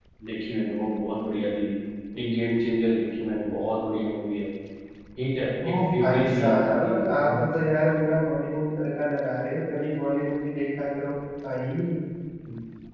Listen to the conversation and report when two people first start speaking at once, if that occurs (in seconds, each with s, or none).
5.6 s